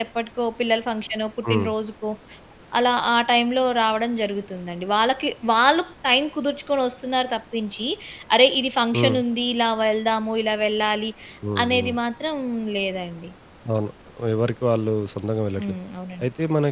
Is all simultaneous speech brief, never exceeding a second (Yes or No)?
Yes